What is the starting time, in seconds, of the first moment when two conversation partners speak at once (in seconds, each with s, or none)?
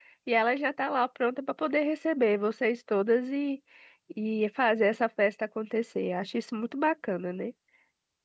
none